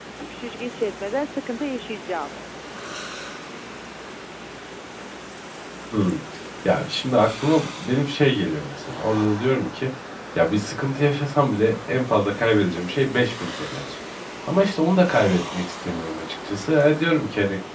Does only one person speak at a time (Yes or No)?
Yes